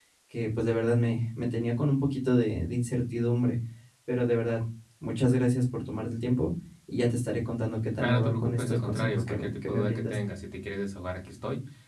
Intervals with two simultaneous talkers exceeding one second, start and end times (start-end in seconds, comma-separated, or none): 8.0-10.2